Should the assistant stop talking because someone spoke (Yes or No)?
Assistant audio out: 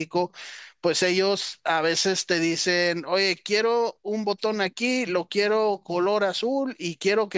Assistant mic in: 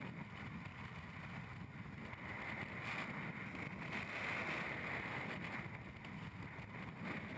No